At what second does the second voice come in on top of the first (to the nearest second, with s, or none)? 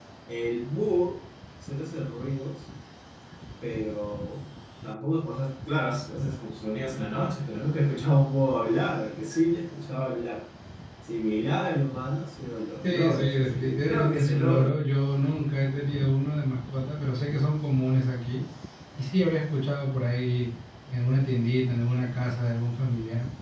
13 s